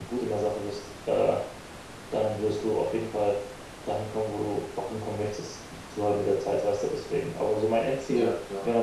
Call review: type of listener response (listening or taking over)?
listening